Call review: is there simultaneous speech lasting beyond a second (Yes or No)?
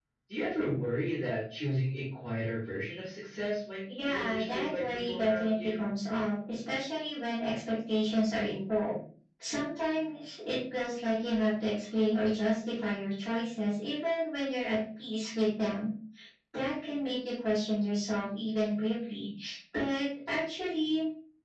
Yes